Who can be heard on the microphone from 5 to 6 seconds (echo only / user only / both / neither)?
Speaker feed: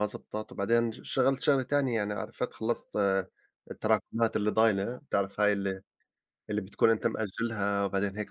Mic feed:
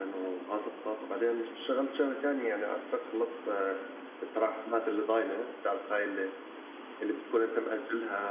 echo only